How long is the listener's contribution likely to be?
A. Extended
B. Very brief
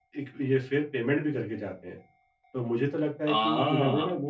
B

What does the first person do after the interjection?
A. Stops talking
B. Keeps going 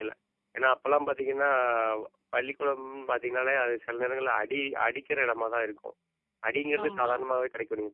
B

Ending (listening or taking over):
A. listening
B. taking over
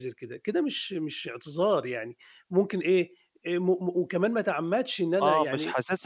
B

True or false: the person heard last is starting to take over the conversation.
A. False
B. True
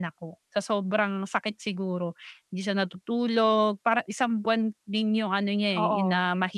A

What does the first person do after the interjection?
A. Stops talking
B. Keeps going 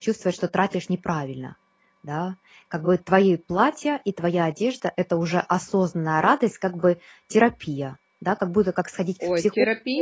A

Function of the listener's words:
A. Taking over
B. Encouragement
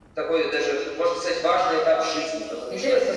A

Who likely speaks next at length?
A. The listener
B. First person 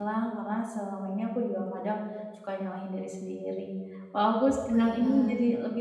B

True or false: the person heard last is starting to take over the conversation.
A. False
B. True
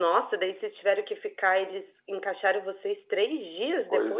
B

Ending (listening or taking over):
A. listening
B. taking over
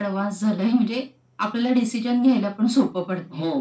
B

